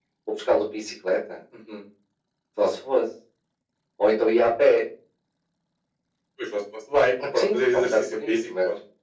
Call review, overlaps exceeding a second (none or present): present